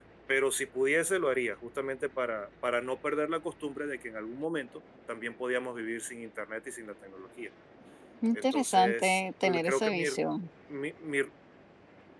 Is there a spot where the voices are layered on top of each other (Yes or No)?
Yes